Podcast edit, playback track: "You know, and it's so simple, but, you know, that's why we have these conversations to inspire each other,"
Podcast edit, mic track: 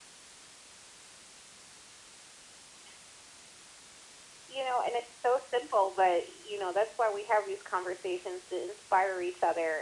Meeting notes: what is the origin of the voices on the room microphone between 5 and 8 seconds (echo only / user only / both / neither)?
echo only